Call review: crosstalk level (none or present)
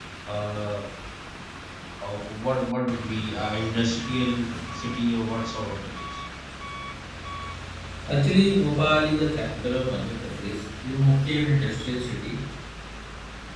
none